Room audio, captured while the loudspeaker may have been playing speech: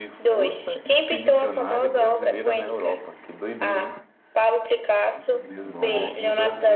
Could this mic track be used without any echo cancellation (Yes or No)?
No